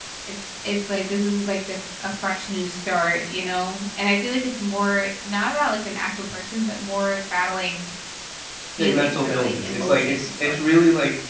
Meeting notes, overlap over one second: present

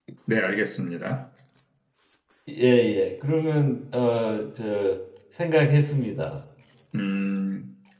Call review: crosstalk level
none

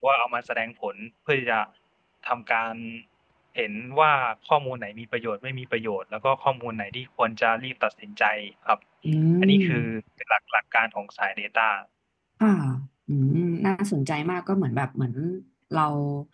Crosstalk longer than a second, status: none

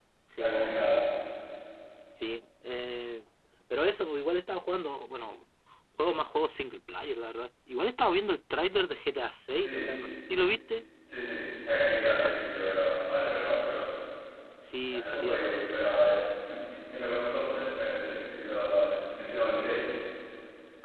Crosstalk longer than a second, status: none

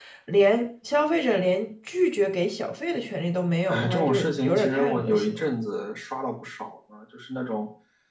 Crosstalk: present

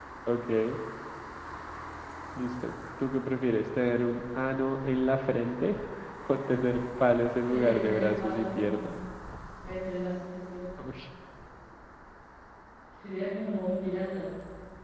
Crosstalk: present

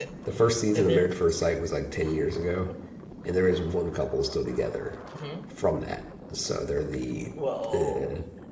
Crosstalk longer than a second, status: none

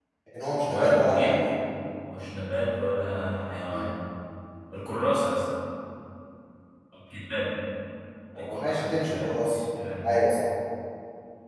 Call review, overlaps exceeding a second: present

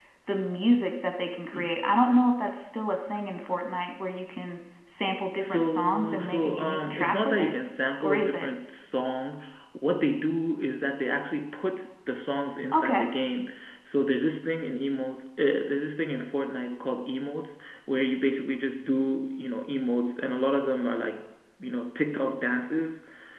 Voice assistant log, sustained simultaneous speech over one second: present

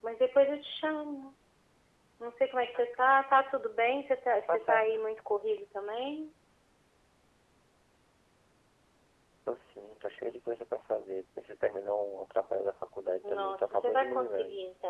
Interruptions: present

